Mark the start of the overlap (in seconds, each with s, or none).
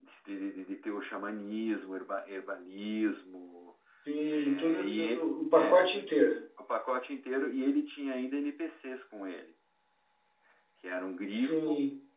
4.3 s